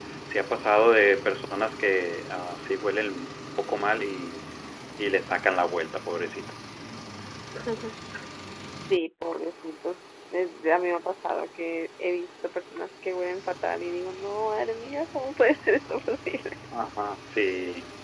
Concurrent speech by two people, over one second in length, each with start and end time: none

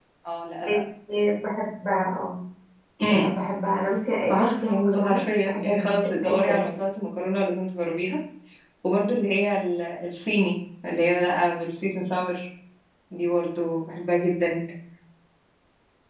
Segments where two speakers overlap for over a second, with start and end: 4.3-6.7

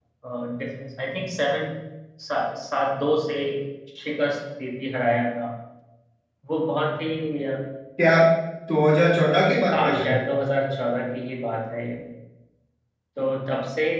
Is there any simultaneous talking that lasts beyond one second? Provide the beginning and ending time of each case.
none

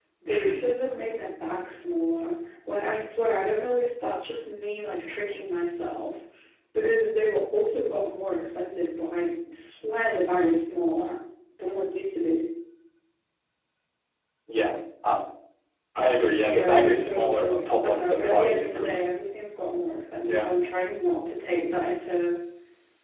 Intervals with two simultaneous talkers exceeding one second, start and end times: 16.4-19.1

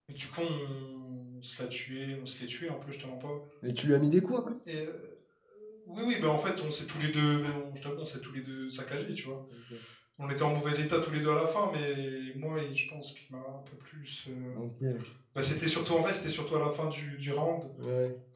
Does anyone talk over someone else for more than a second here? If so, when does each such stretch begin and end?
none

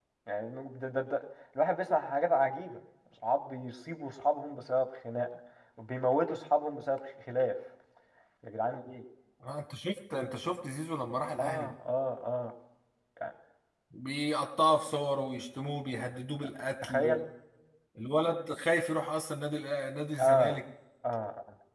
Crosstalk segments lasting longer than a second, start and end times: none

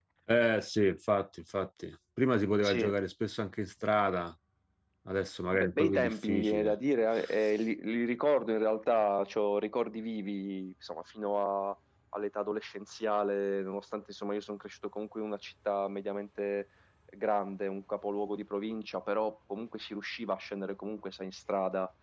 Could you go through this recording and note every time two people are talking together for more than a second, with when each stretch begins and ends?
5.5-6.8

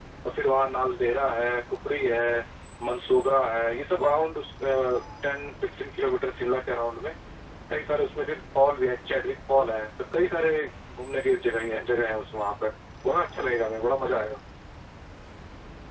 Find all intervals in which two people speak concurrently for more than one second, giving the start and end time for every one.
none

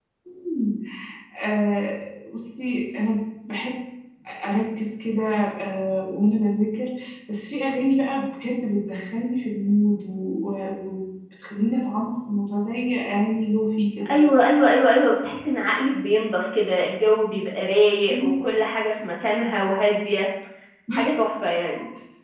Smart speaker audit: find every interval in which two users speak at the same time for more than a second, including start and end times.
none

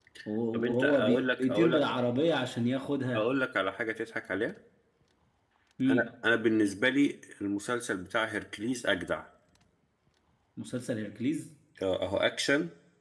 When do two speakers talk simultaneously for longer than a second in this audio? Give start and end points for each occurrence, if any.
0.5-1.8

